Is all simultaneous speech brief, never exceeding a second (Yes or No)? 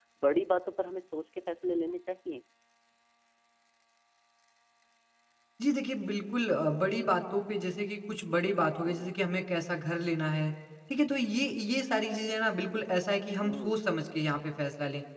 Yes